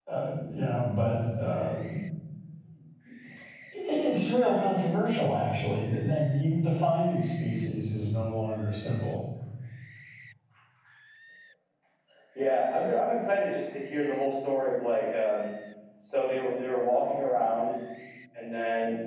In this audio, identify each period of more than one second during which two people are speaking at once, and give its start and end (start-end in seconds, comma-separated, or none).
none